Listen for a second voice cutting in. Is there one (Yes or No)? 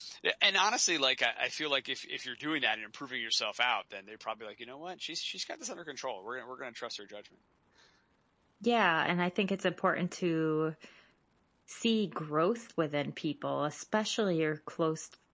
No